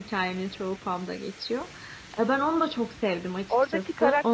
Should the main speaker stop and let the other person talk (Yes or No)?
Yes